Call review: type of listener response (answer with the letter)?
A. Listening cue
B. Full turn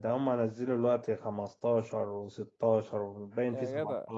B